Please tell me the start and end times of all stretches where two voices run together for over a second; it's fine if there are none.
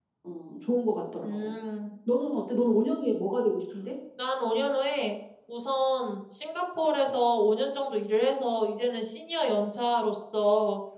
none

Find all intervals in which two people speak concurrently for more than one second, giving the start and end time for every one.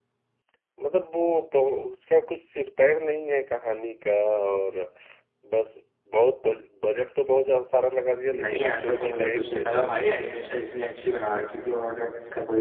8.4-10.2

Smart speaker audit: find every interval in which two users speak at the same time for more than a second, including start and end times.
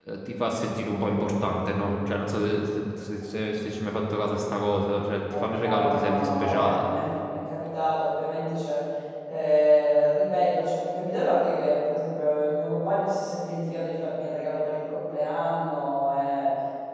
5.4-6.9

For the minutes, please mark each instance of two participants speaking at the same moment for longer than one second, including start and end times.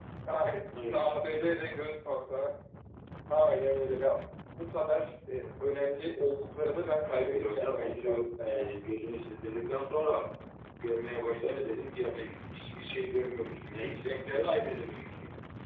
7.0-8.8

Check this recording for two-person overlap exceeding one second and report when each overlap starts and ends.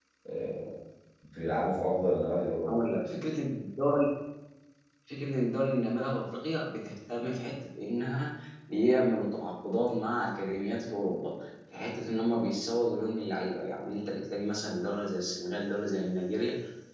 none

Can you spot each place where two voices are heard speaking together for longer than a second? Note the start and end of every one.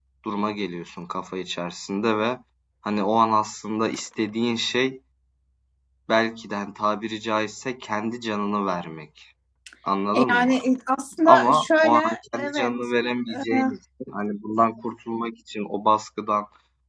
11.2-12.7

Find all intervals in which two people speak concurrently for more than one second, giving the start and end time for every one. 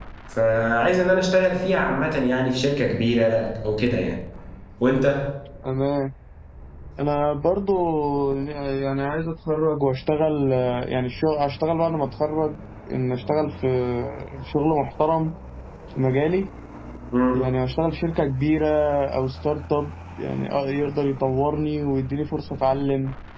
none

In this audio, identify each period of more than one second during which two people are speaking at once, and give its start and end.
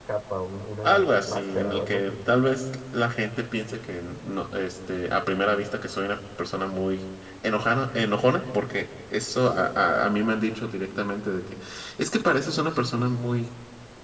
0.8-2.1

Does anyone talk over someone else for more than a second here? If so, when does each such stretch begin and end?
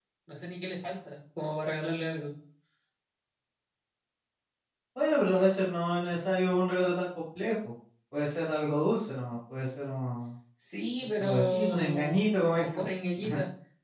11.2-12.8

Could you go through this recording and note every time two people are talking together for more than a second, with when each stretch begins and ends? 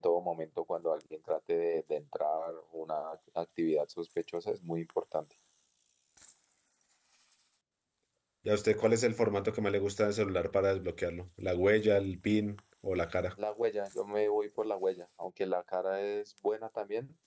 none

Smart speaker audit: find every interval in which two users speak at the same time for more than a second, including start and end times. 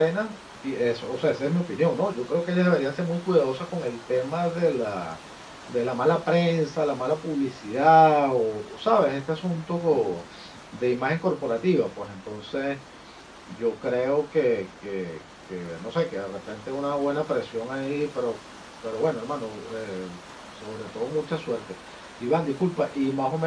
none

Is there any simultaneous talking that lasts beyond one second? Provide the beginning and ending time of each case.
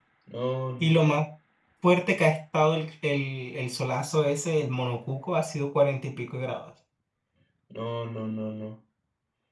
none

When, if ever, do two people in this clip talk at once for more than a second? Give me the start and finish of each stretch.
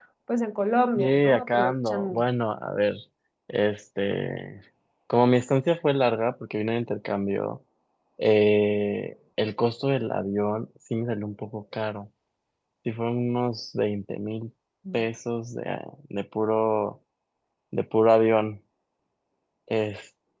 1.0-2.2

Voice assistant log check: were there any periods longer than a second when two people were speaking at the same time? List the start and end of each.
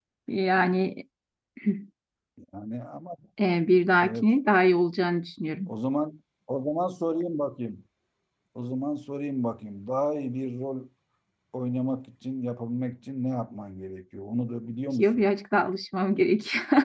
none

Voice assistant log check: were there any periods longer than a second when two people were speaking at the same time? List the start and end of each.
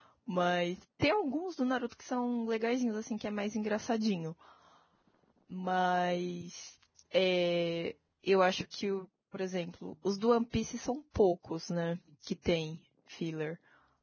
none

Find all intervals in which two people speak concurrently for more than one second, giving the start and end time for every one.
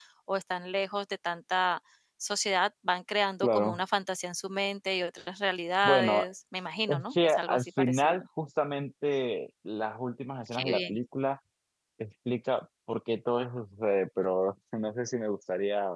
6.9-8.2

